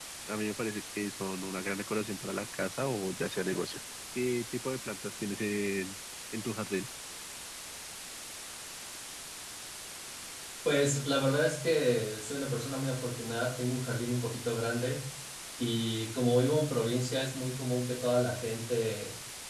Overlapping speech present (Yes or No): No